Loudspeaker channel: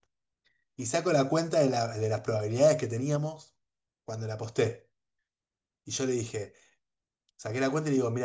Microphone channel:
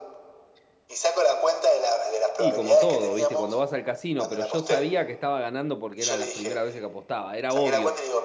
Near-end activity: present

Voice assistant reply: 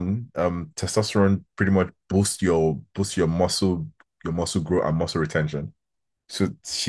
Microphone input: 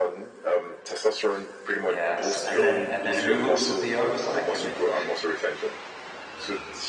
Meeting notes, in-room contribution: present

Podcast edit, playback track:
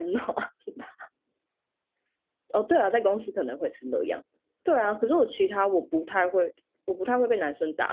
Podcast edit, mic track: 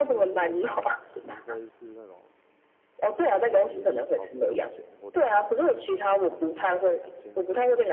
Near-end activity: present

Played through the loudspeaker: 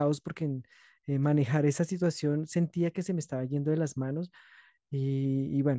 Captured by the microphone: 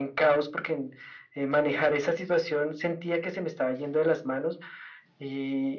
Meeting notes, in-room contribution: none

